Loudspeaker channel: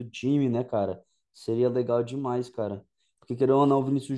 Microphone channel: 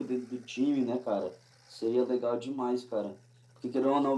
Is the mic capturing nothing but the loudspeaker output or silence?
Yes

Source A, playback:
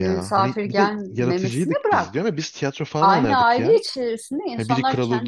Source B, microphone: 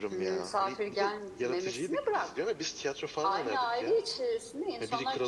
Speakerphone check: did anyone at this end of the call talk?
No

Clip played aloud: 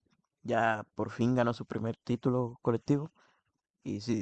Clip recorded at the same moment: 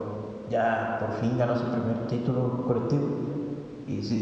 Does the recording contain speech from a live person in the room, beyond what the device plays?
No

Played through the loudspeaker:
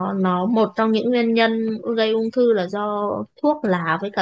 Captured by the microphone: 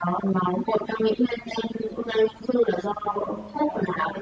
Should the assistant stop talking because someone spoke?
Yes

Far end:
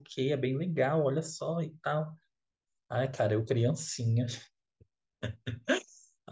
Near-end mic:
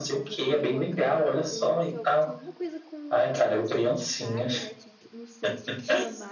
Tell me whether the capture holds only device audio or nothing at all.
No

